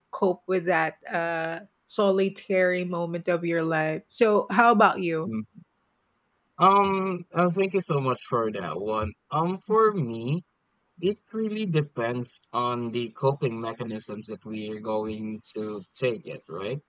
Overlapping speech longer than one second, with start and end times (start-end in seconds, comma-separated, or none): none